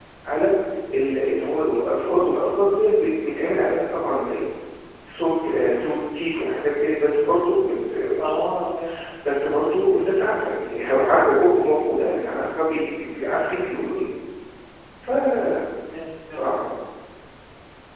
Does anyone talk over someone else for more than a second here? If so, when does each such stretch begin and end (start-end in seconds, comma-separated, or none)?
none